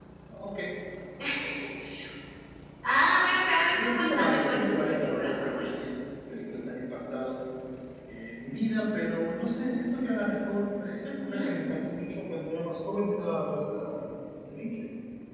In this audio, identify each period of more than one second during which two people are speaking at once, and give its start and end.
3.7-5.7

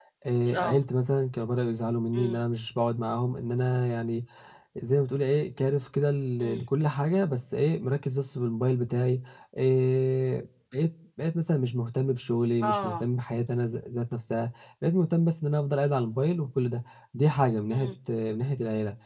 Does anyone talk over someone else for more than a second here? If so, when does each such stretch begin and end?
none

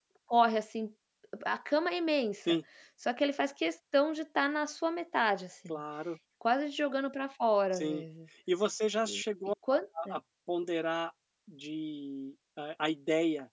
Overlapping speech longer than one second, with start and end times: none

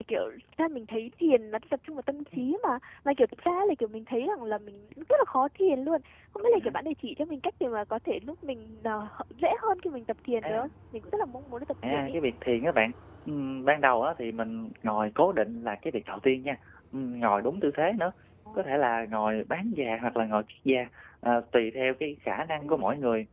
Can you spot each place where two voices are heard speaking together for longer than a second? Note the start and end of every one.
none

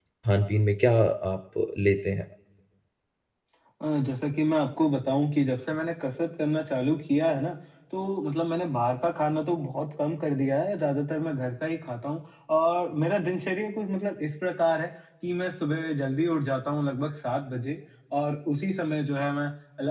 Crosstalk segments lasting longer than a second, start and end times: none

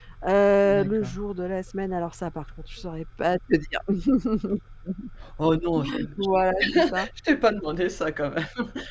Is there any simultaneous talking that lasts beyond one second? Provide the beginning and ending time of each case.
none

